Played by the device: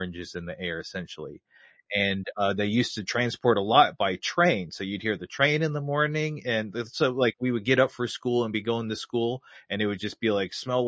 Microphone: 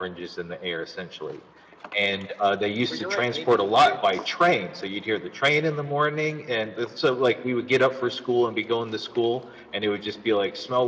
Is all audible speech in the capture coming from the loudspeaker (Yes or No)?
No